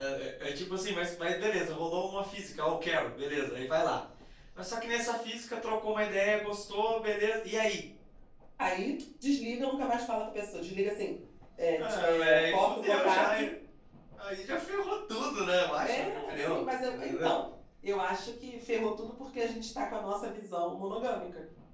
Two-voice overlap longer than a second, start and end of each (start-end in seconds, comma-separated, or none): 11.8-13.5, 15.8-17.3